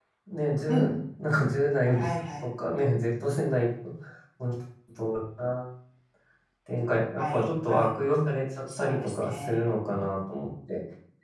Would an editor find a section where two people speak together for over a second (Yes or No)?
Yes